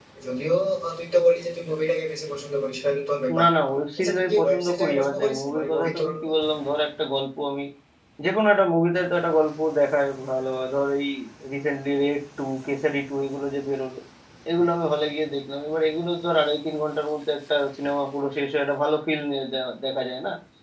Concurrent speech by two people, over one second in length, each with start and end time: 4.0-6.3

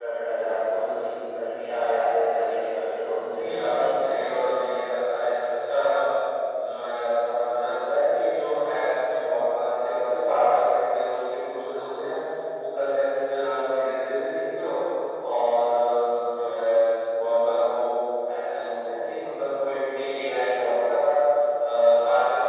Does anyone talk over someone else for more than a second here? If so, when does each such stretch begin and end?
2.9-4.4

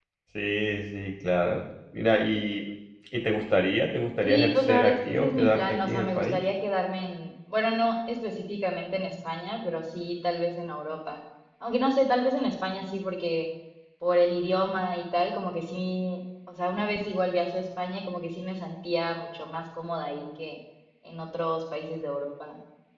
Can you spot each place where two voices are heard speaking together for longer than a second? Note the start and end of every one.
4.2-6.4

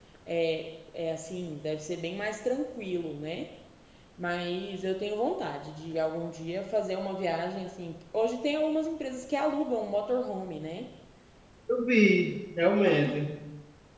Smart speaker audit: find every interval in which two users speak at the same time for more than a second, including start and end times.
none

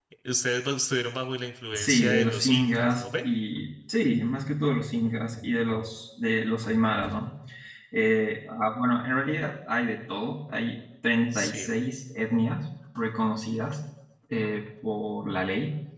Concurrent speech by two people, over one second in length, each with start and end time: 1.7-3.2

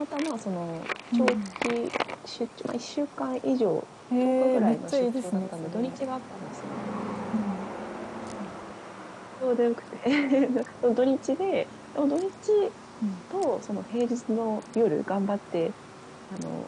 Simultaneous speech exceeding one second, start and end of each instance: 4.2-6.0

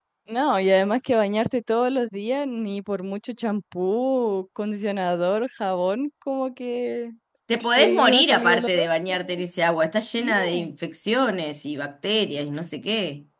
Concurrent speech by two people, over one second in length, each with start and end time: 7.7-9.4

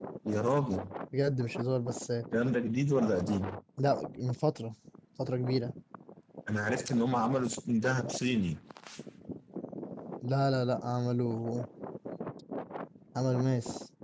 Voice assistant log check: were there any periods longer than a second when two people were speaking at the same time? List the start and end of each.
none

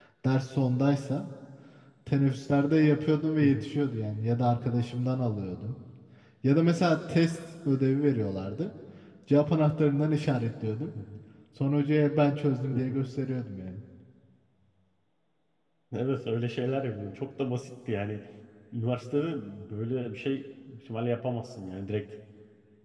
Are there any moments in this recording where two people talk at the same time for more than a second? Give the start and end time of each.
none

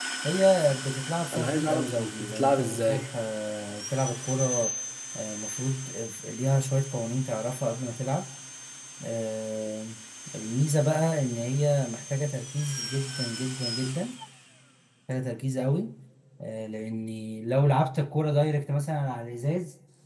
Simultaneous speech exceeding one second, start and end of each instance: 1.3-3.1

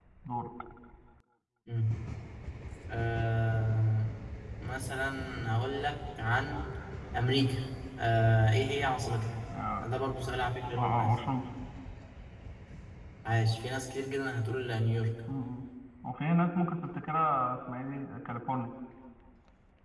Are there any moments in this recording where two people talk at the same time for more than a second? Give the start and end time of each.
none

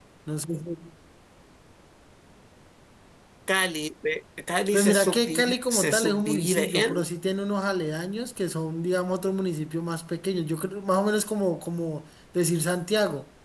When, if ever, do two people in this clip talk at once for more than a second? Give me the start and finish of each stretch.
4.7-7.1

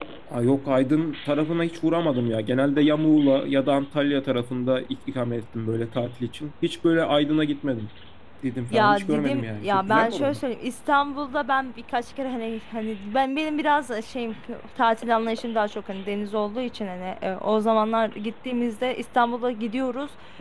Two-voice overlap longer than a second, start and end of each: 8.7-10.4

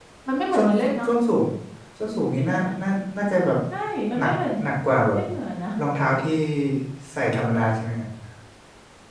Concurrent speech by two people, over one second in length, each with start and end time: none

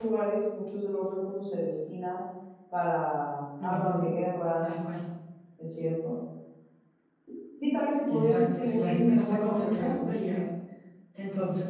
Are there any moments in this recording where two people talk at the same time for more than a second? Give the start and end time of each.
8.1-10.1

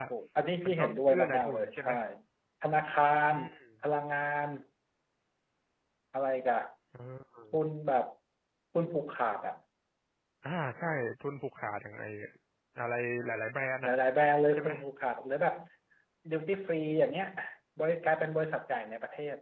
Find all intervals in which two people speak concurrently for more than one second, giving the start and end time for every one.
0.7-1.9

